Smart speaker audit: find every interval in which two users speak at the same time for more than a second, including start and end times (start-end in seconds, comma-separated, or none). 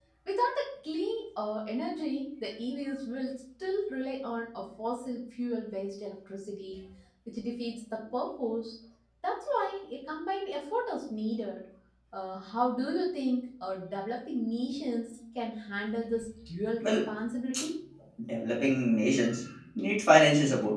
none